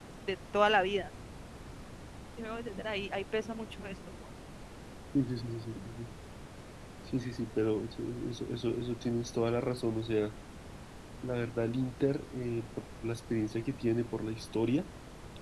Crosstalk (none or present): none